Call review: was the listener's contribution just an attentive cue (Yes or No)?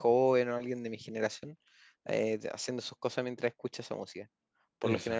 Yes